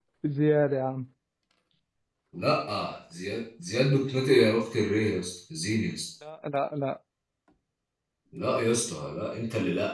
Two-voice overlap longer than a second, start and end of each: none

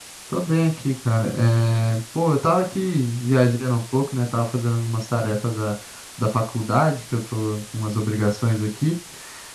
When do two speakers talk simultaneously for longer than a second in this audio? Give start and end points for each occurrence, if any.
none

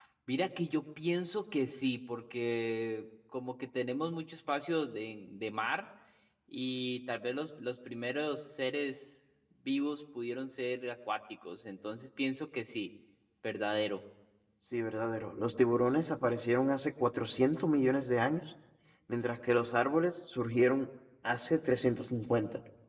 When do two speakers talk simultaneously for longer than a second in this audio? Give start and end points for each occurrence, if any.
none

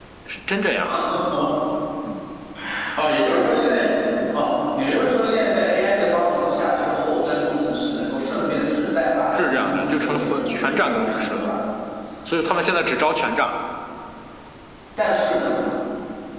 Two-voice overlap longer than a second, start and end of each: 9.3-11.4

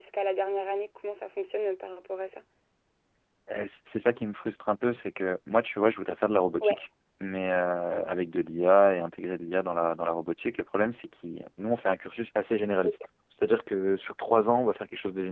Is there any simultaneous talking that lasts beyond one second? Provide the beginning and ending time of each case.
none

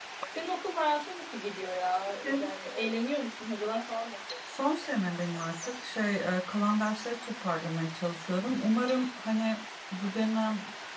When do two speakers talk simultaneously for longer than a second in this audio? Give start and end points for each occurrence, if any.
none

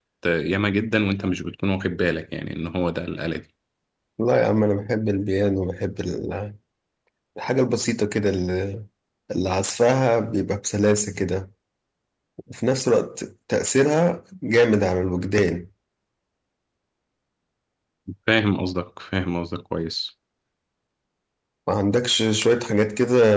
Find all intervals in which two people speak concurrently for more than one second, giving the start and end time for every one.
none

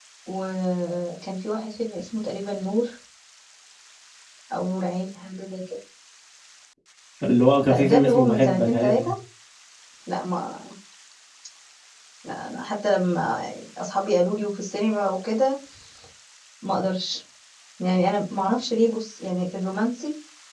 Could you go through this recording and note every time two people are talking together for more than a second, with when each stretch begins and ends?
7.6-9.1

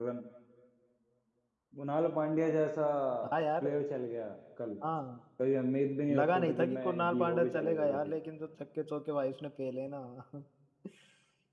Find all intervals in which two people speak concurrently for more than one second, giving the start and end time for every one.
6.1-8.1

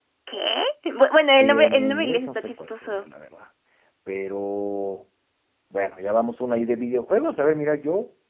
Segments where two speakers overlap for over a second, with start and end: 1.3-3.0

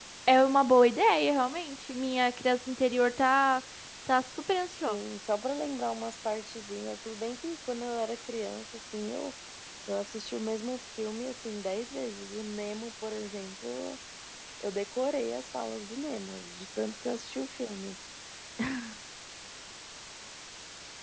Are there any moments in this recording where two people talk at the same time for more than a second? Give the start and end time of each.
none

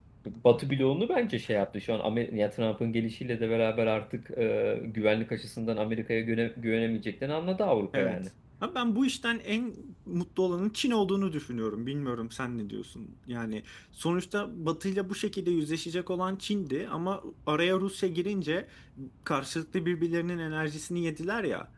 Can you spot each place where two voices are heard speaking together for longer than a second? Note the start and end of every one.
none

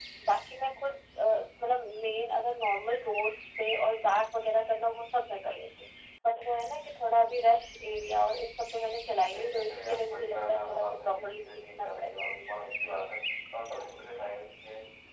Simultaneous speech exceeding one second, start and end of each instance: 9.3-12.3

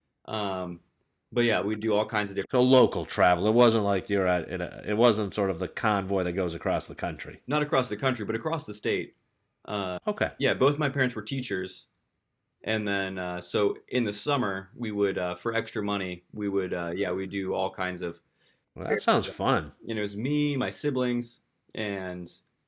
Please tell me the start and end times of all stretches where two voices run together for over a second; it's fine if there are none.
none

